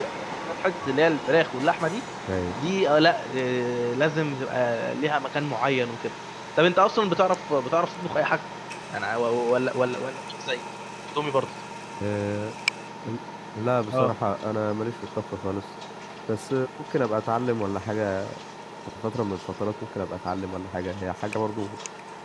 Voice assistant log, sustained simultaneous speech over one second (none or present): none